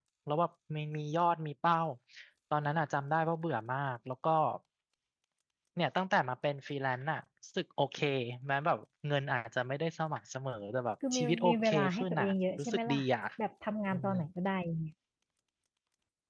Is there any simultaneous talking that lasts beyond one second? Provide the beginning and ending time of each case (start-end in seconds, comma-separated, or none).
11.1-13.0